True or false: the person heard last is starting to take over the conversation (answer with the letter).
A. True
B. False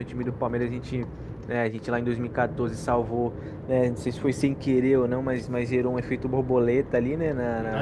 A